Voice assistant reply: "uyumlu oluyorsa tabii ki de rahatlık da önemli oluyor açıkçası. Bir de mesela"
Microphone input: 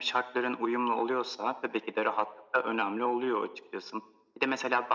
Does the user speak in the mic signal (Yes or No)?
No